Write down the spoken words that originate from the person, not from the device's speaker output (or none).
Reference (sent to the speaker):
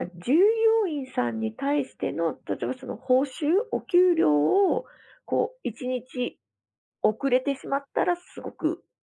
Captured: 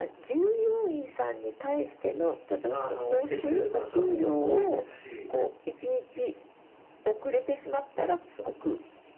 あの、来てくれる方も多いですし、